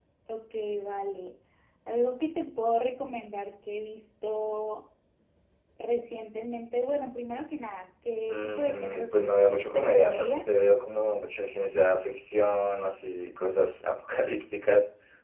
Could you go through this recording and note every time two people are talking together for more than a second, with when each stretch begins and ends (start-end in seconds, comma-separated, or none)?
8.3-10.4